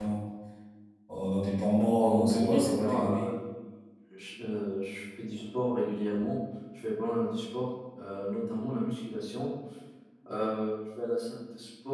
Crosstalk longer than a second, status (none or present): present